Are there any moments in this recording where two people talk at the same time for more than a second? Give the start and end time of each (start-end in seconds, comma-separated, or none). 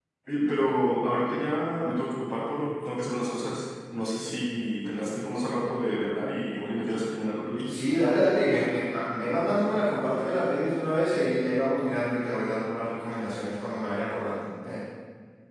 none